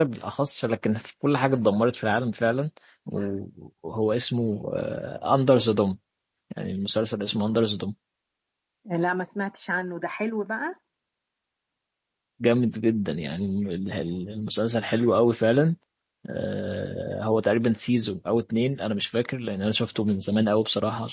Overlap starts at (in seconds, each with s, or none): none